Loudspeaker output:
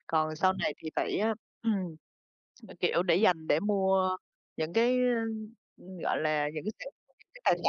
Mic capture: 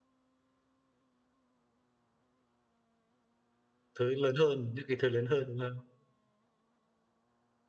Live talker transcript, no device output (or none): Thứ lớn hơn, những cái thứ lớn hơn, đúng không?